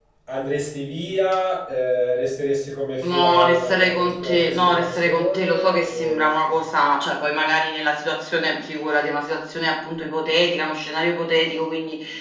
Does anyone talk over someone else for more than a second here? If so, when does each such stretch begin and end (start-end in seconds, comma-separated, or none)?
3.0-6.3